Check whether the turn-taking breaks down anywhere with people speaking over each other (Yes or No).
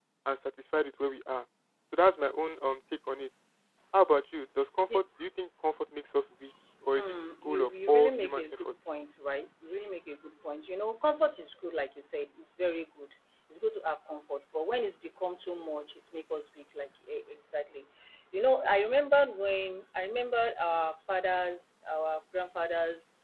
Yes